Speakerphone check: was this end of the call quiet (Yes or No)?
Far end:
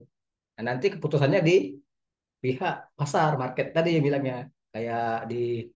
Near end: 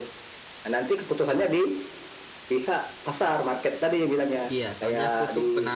No